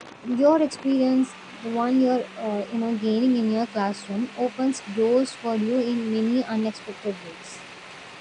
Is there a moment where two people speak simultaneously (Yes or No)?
No